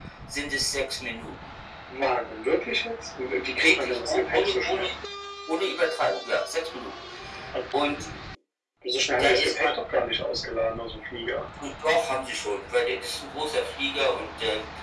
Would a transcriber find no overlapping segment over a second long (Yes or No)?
No